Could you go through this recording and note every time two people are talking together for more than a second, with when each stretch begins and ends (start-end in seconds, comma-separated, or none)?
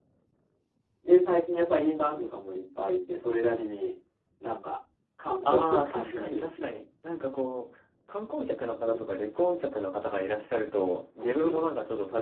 5.5-6.7